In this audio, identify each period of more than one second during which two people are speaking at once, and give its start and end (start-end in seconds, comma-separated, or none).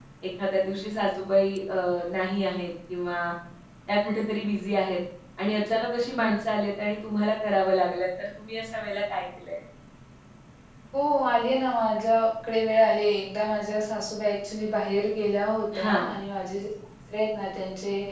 none